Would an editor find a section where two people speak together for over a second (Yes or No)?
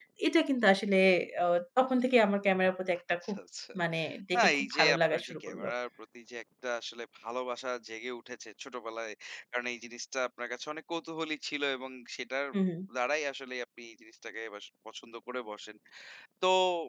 Yes